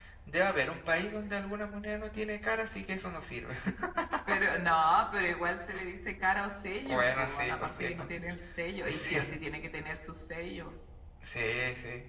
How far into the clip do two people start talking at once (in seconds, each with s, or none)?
6.8 s